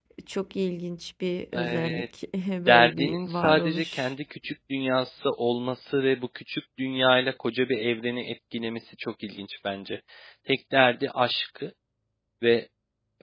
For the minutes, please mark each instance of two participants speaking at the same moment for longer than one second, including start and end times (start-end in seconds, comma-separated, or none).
2.7-4.1